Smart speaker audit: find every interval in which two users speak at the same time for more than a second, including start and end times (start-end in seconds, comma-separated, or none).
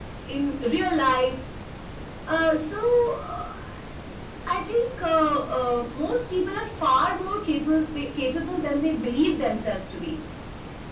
none